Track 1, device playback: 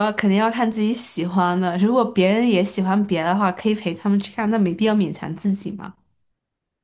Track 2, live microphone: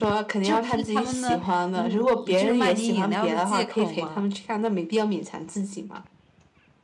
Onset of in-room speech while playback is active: 0.4 s

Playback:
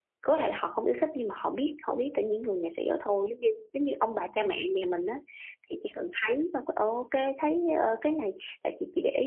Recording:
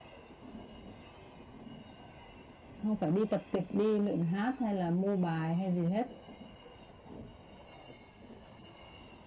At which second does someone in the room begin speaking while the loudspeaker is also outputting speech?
2.8 s

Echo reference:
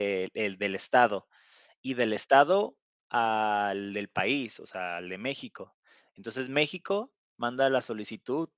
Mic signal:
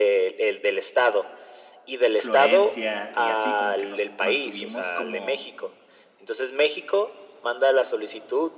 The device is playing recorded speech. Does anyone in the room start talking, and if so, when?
2.2 s

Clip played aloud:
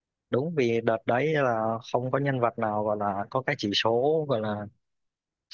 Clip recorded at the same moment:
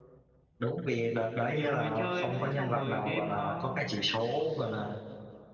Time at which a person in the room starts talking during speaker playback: 1.5 s

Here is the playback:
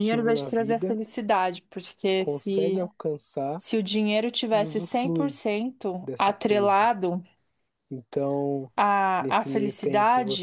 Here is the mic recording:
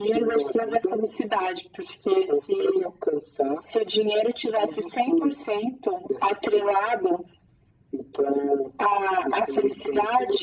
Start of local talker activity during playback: none

